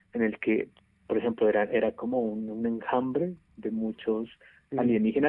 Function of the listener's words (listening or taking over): listening